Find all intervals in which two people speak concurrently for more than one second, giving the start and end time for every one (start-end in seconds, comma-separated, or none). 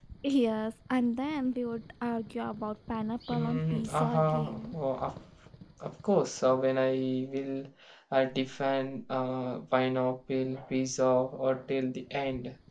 3.3-4.8